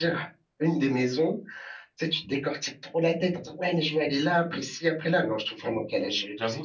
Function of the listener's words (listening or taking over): taking over